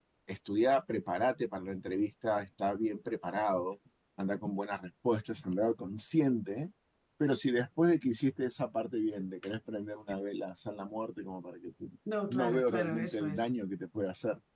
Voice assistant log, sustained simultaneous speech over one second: present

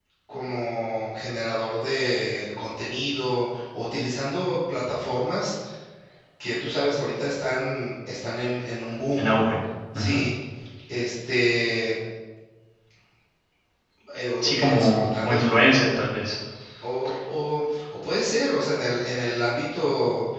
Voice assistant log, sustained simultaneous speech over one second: present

